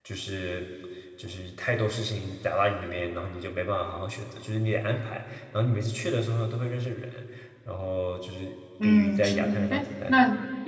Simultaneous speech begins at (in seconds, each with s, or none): 8.8 s